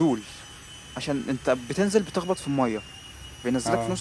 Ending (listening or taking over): listening